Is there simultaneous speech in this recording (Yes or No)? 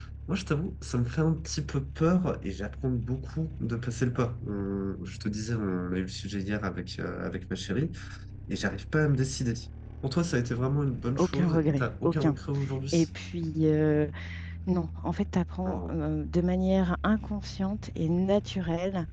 Yes